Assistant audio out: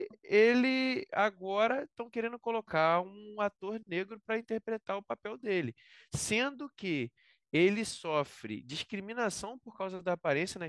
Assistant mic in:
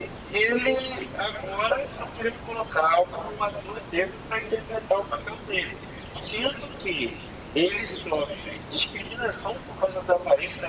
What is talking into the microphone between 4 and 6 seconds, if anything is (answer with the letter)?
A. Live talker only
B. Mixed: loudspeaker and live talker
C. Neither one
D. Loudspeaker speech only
D